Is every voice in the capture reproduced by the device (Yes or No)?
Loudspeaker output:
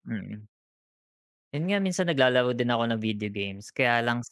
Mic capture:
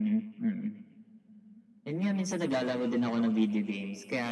Yes